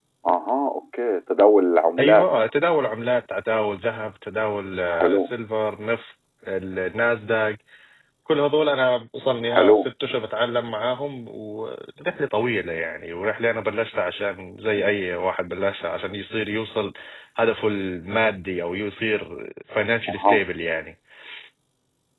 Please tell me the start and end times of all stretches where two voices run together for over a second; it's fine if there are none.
none

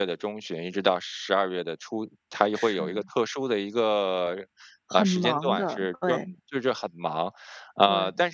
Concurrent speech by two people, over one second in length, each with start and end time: 4.9-6.3

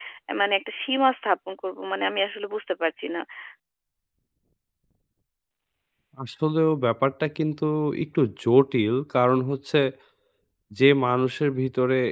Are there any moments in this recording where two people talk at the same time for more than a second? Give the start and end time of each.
none

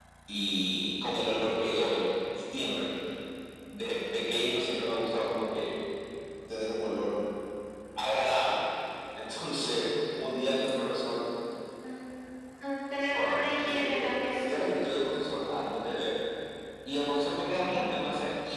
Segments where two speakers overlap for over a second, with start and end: 13.1-14.4

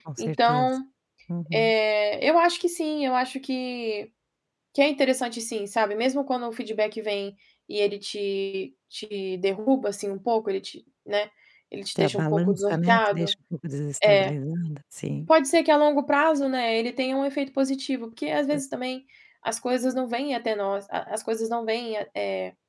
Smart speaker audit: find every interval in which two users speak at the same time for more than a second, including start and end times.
12.0-13.3

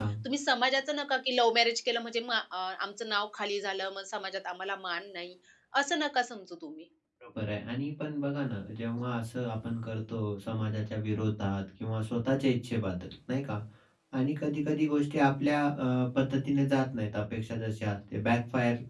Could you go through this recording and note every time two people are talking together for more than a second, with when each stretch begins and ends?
none

